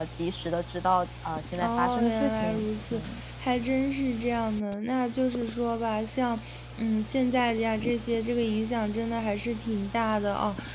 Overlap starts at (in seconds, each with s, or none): 1.5 s